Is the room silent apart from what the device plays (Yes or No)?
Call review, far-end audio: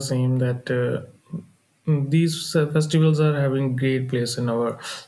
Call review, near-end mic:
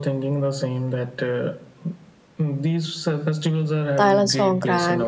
No